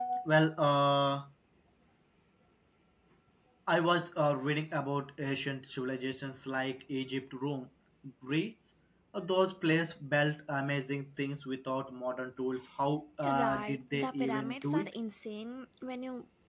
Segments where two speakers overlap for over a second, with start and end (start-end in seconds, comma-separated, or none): 13.3-14.9